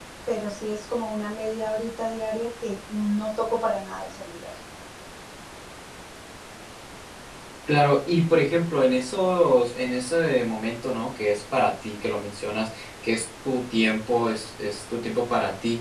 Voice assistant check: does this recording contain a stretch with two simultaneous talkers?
No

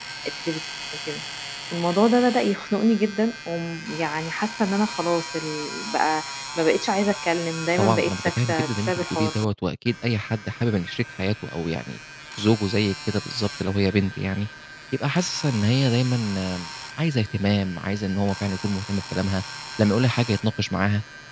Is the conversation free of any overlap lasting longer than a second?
No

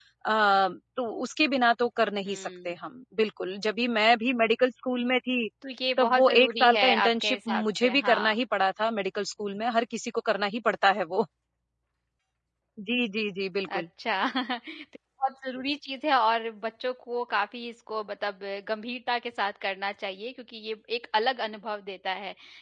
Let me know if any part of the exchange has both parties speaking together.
Yes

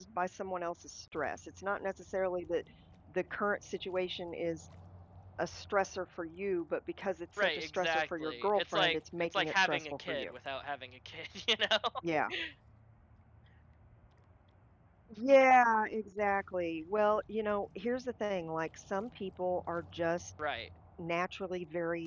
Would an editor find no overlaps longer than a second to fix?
No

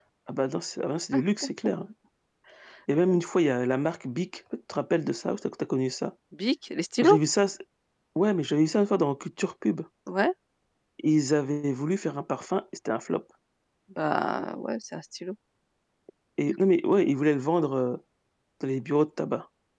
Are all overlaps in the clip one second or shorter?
Yes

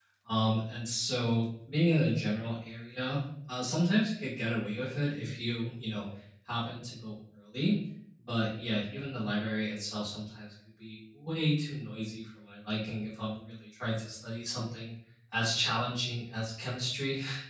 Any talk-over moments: No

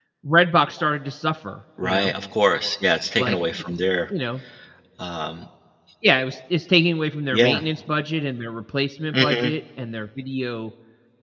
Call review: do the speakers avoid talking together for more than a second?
Yes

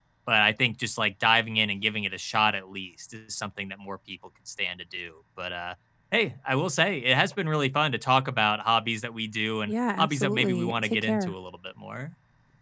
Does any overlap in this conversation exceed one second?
Yes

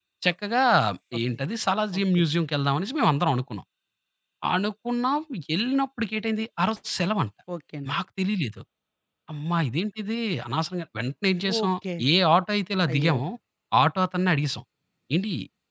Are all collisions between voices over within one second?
Yes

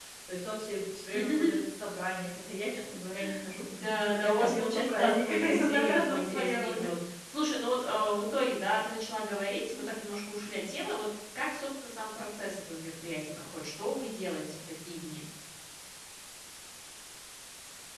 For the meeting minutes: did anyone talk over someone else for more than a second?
Yes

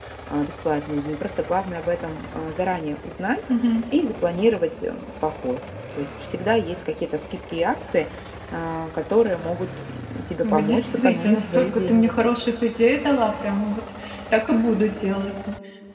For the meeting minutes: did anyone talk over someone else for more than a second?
Yes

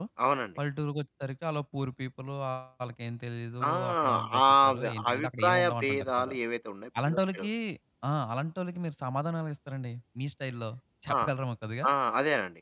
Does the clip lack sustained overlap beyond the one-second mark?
No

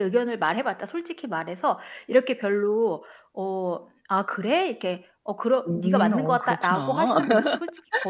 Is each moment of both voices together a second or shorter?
No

